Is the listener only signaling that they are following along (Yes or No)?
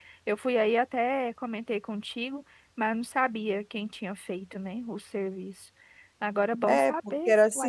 No